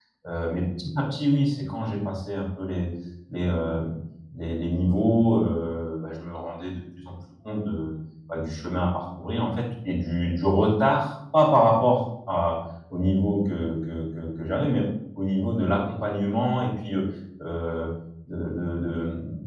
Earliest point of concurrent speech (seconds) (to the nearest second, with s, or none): none